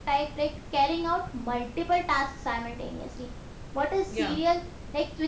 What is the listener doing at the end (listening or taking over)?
listening